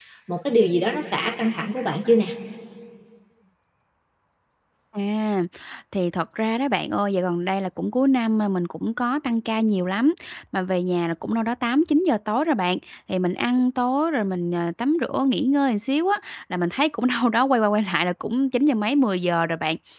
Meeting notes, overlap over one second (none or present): none